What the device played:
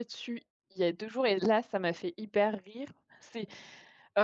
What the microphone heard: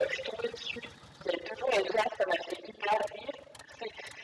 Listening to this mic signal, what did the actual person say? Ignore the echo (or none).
none